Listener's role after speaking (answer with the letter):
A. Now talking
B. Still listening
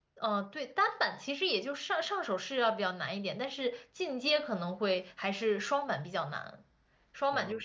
B